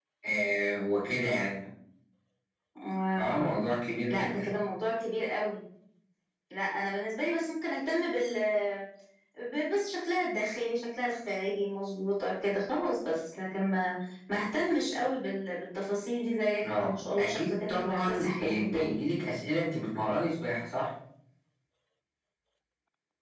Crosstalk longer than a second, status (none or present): present